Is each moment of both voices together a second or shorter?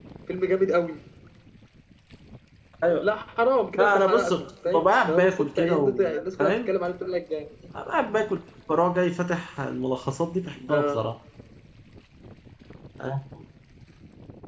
No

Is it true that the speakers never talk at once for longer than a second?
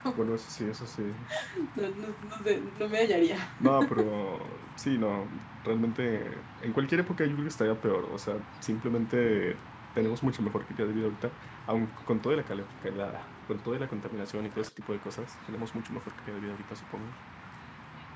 Yes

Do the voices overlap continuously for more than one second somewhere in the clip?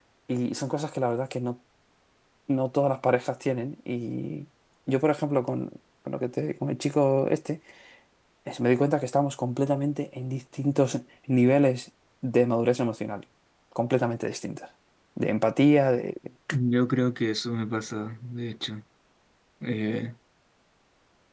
No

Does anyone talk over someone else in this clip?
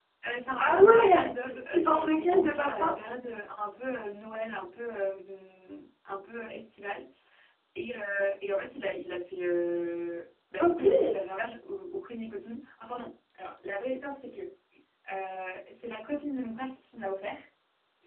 Yes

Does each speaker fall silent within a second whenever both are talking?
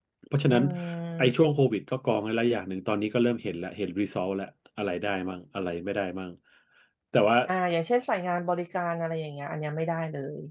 Yes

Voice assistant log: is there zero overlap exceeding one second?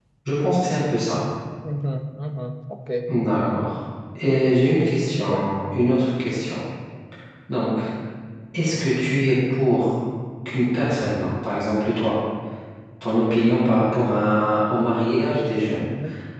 Yes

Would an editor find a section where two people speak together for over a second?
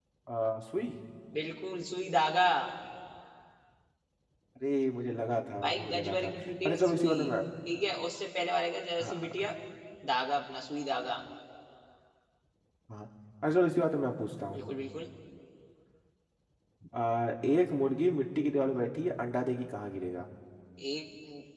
Yes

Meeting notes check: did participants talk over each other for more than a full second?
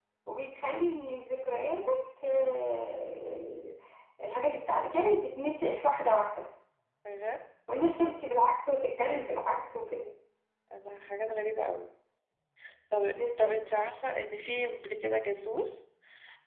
No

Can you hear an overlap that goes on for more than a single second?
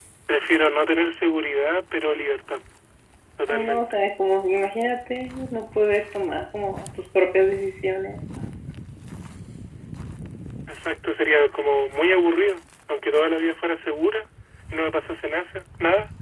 No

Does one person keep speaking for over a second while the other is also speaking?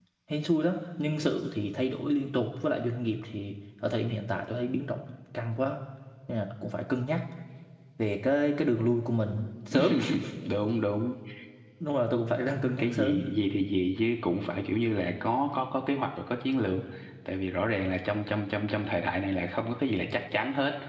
No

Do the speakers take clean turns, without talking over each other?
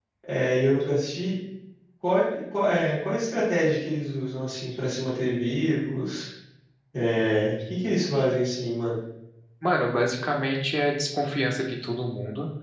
Yes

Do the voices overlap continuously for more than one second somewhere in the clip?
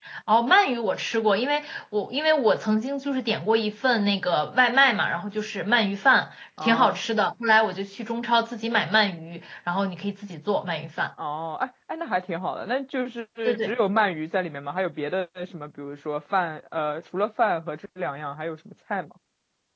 No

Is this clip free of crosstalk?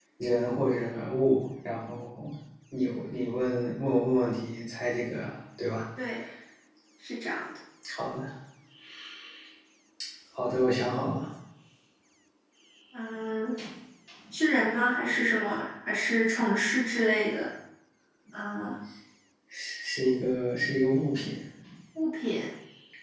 Yes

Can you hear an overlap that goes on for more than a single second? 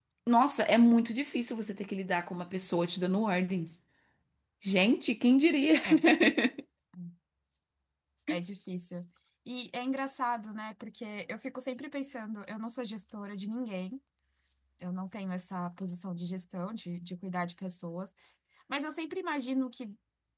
No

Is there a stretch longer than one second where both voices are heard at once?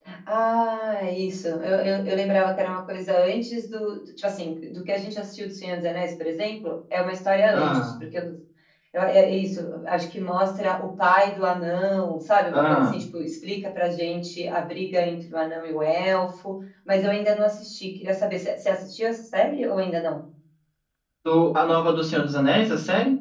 No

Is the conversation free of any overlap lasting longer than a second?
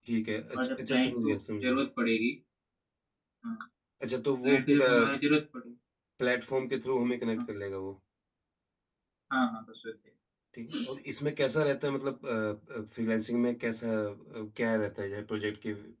No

